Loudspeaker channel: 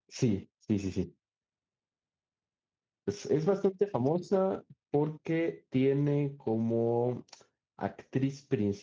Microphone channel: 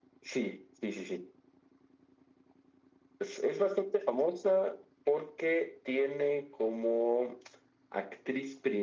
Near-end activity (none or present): none